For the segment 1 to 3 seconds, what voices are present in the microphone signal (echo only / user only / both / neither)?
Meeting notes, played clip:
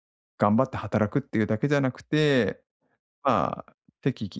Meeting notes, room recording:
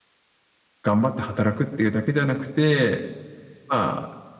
echo only